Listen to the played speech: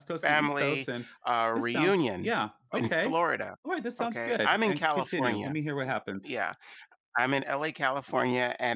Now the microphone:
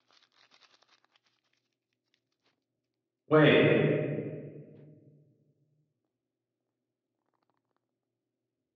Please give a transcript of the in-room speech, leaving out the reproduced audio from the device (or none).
Wait,